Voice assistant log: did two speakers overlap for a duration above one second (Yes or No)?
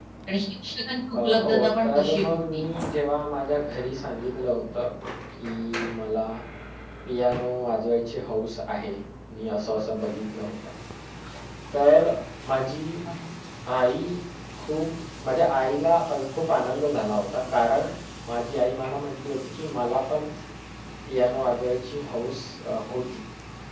Yes